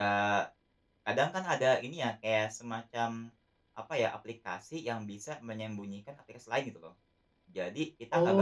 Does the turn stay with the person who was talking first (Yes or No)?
No